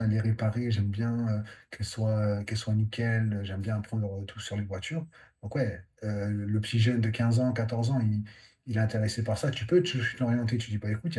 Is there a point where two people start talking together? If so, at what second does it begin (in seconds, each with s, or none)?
none